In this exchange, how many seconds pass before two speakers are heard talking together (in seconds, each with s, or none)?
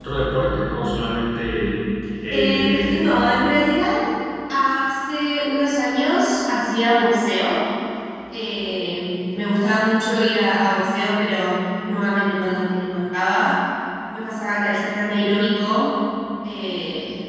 2.3 s